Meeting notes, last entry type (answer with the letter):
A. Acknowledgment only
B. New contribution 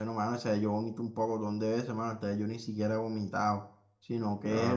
A